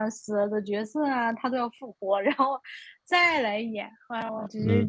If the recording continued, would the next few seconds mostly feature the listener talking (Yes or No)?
Yes